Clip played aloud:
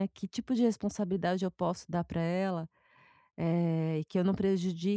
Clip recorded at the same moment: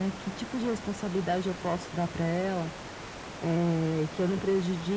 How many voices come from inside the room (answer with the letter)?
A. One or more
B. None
B